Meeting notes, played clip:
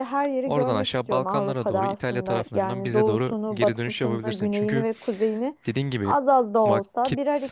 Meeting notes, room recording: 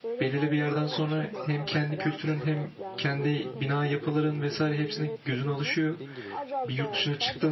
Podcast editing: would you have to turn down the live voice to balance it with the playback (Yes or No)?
Yes